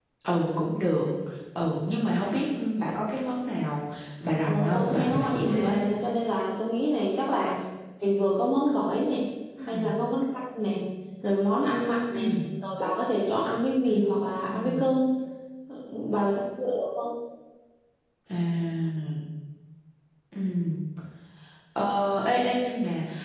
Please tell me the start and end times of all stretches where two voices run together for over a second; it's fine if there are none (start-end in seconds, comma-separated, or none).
4.4-5.8